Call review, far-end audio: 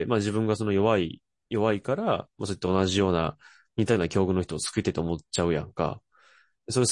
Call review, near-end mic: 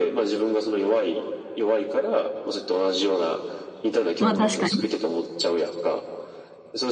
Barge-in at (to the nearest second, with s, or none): 4 s